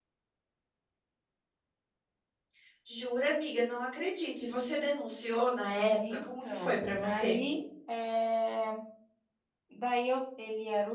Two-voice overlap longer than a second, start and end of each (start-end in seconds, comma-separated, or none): 6.1-7.4